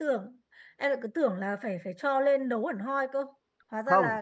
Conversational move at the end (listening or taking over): taking over